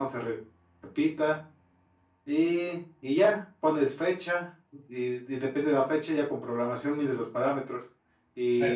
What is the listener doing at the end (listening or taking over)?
listening